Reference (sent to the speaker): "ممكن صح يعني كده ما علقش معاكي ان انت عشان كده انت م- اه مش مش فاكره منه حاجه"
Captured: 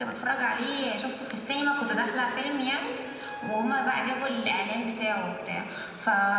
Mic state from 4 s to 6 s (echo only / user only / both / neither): user only